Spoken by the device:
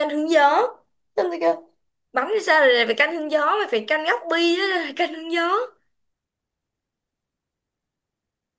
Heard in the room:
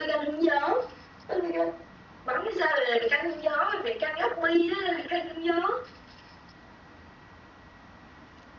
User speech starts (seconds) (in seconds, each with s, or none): none